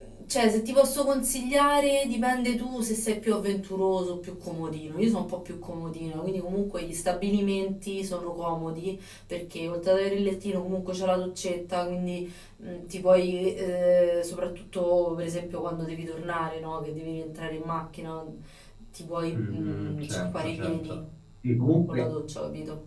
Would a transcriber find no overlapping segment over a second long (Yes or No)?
No